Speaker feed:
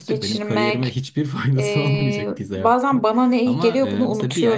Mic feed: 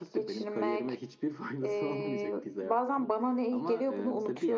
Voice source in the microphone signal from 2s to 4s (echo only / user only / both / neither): echo only